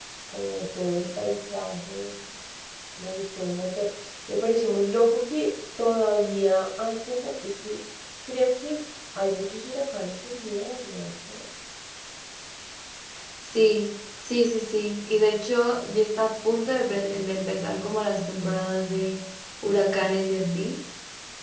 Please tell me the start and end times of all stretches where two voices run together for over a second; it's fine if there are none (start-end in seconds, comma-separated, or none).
none